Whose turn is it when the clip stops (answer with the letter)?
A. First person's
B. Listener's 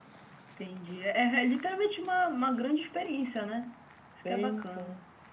B